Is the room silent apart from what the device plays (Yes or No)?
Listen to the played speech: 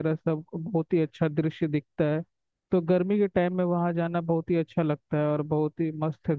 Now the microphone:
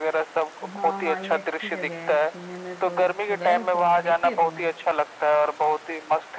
No